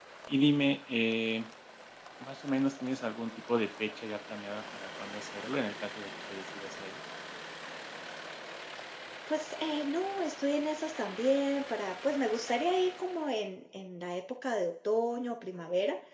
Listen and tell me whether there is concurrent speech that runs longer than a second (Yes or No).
No